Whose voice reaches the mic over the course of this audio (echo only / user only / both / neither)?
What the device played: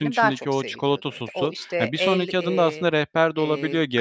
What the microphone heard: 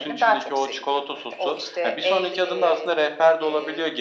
echo only